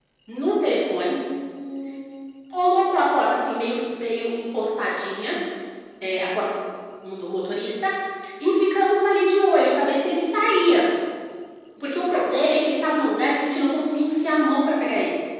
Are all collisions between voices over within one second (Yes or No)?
Yes